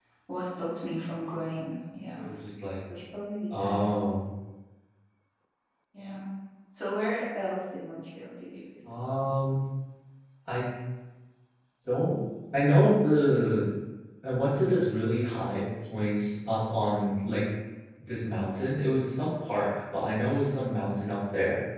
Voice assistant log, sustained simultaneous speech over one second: none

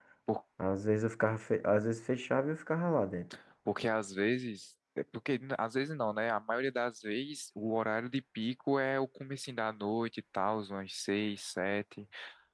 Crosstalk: none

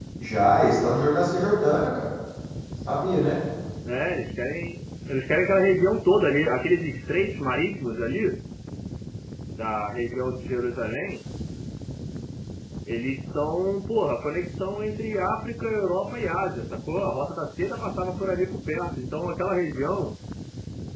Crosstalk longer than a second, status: none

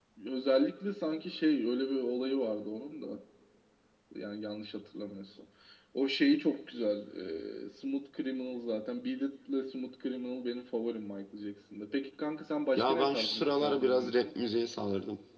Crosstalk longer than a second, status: present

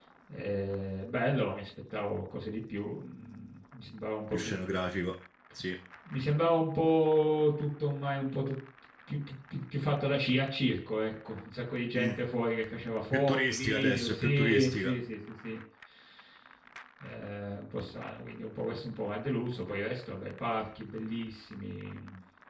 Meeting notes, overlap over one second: present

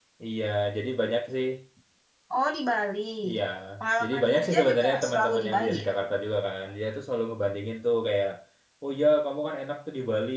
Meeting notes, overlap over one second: present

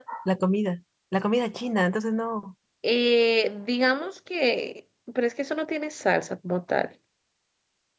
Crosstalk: none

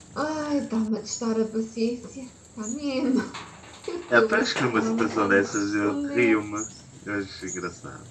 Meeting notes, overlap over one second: present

